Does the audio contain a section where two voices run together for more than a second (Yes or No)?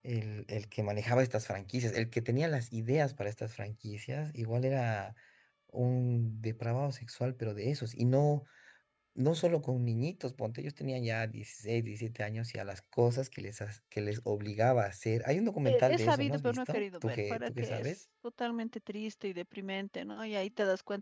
Yes